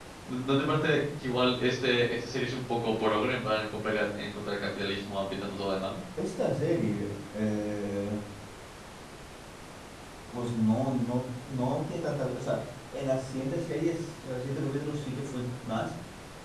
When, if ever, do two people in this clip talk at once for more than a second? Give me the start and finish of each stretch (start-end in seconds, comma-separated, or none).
none